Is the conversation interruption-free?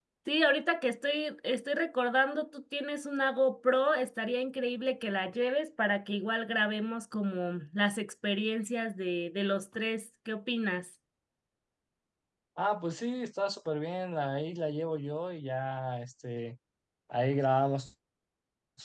Yes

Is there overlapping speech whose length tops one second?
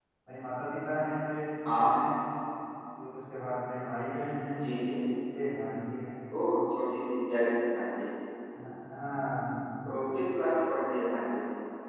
No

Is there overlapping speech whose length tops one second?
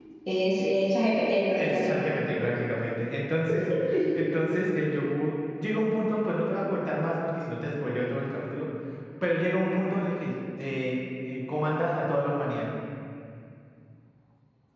No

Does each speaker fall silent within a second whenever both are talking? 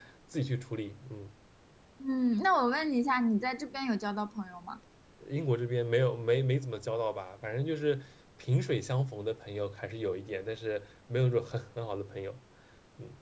Yes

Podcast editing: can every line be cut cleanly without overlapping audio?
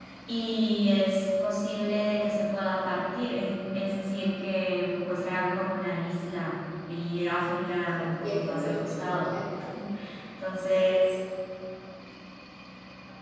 No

